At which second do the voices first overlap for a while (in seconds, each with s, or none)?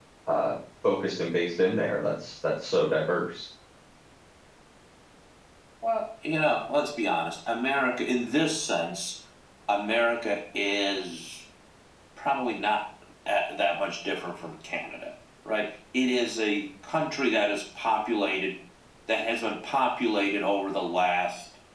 none